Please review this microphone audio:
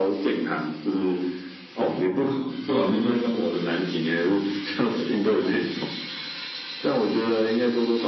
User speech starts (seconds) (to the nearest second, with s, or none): none